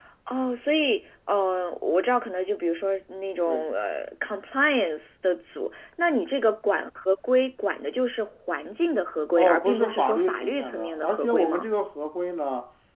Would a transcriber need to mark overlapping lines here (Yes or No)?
Yes